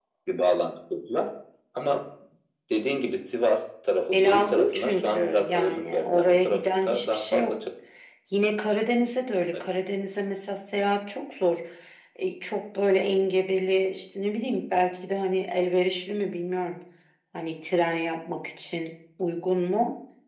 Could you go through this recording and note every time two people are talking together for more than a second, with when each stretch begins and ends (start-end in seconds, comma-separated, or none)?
4.1-7.6